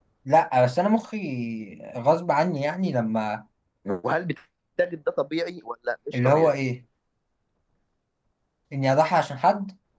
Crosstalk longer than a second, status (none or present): none